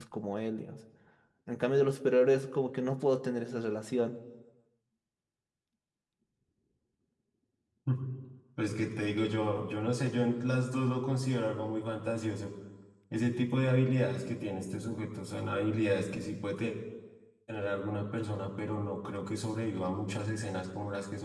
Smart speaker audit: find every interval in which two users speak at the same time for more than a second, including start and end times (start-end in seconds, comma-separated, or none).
none